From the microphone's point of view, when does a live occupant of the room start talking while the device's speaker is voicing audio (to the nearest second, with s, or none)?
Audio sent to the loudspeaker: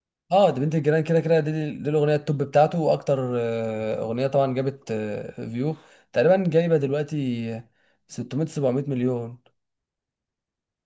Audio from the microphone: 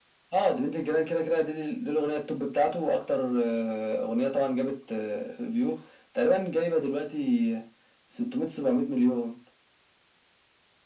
none